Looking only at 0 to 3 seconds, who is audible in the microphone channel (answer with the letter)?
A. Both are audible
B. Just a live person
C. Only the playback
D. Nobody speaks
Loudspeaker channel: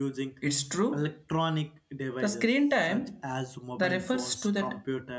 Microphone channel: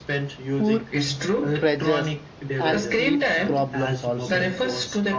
A